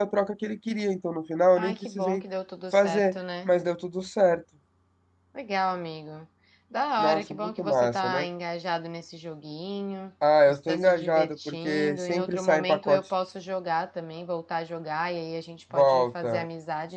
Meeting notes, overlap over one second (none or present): present